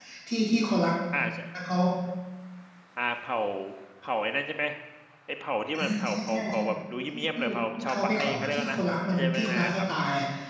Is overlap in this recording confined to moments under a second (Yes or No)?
No